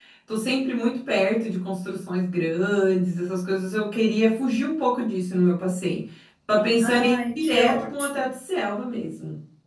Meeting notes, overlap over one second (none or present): present